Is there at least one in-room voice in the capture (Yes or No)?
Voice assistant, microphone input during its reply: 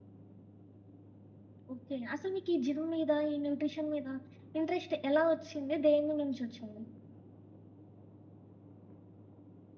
Yes